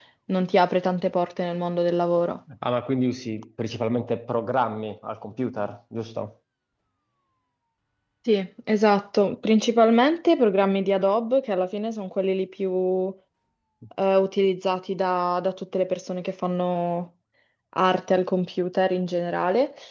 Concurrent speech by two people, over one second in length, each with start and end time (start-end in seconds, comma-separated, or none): none